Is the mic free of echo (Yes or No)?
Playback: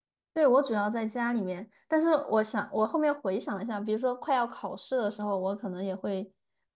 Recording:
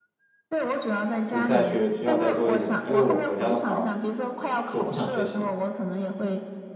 No